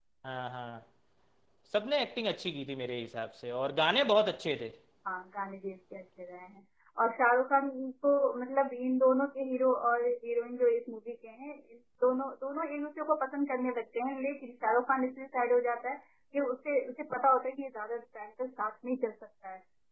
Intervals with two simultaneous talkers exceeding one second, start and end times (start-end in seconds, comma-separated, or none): none